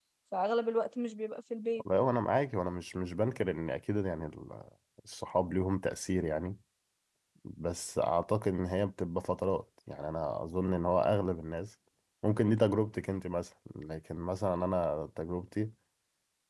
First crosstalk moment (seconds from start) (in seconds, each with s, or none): none